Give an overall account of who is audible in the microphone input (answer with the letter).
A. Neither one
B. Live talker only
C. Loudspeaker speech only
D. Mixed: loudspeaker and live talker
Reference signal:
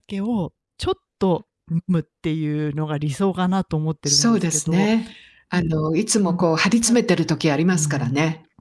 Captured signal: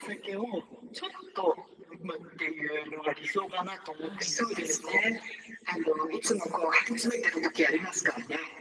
D